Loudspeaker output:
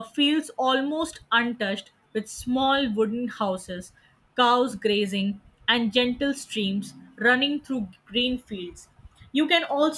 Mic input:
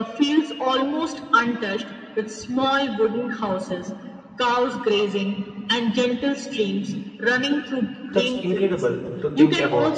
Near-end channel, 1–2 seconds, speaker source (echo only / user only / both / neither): echo only